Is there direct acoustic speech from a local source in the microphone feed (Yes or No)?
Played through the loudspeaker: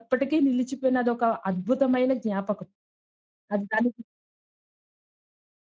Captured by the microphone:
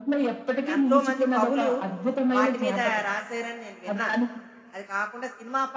Yes